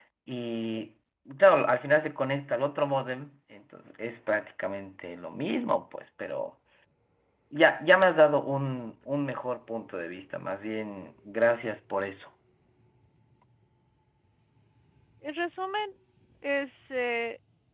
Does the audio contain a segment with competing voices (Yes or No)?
No